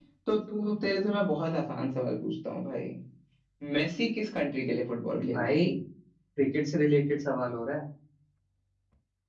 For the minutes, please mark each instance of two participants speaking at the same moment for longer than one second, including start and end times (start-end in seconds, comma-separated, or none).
none